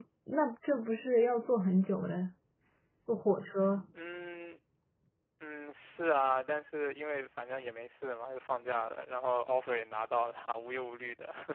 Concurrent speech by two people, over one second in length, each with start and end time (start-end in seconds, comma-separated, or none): none